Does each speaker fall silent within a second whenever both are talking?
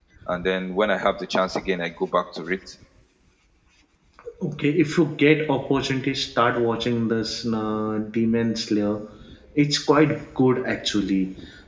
Yes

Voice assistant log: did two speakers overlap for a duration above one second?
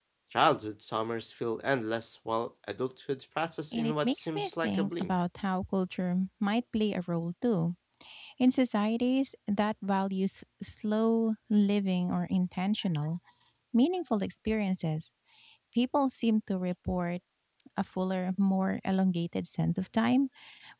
Yes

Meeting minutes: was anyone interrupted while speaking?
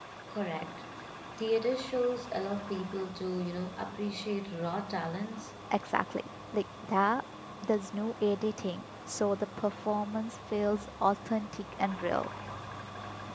No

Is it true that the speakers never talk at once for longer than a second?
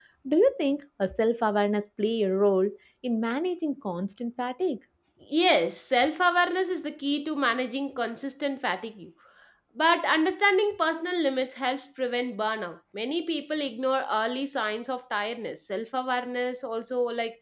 Yes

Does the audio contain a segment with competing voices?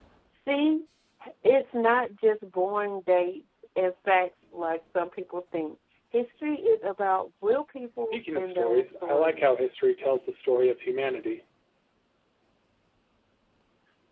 Yes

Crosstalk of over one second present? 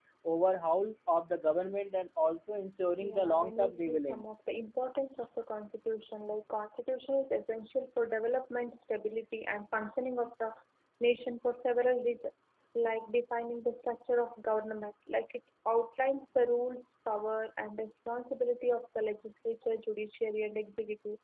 Yes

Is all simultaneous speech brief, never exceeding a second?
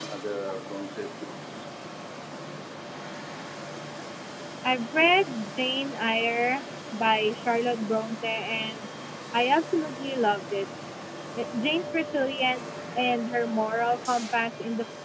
Yes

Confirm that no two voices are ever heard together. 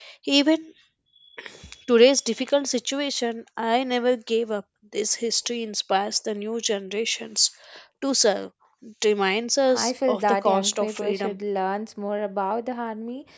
No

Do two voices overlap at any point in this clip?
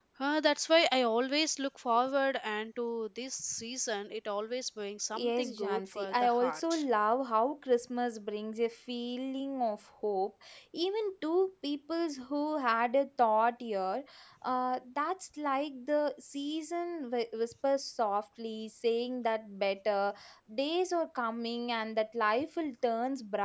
Yes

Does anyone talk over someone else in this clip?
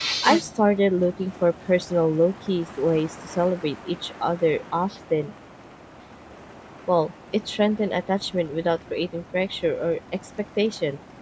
No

